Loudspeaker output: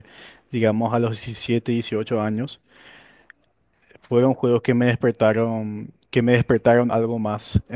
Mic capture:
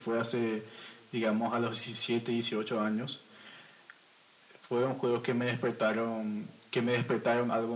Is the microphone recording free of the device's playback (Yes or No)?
No